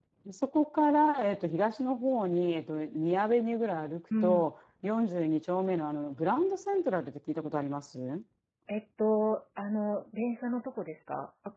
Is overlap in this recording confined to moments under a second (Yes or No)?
Yes